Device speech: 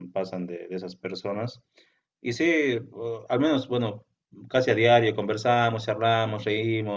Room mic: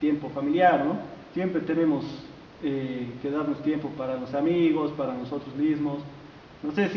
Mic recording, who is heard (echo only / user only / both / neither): user only